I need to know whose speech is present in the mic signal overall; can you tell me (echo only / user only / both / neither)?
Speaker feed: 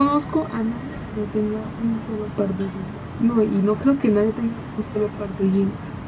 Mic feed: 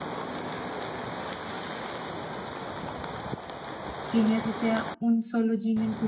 user only